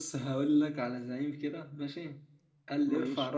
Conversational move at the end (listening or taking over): listening